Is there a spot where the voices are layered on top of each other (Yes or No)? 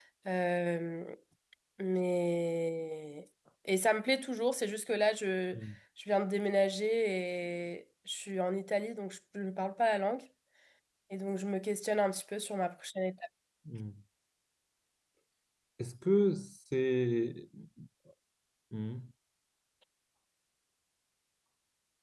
No